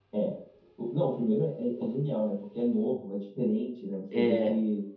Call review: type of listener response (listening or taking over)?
listening